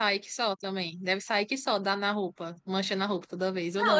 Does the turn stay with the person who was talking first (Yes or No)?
No